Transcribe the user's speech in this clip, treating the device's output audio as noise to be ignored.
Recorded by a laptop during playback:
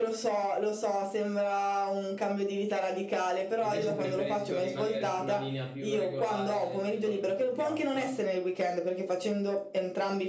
E invece preferisco rimanere su una linea più regolare, se vuoi più piatta,

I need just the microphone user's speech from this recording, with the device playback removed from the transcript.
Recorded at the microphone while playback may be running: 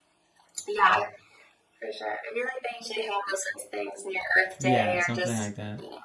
Yeah, something like that.

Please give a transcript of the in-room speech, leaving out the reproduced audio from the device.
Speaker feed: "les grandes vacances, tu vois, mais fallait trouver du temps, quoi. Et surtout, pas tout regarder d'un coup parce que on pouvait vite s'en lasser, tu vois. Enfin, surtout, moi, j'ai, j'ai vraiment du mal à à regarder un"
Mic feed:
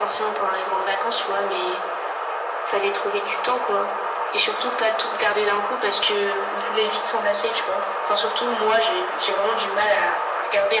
none

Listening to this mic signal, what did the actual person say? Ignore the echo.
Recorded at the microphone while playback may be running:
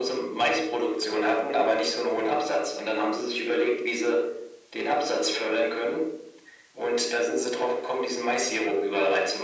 none

